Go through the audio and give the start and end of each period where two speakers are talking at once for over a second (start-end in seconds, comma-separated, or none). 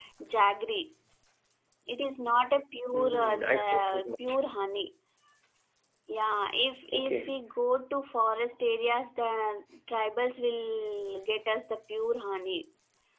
2.9-4.4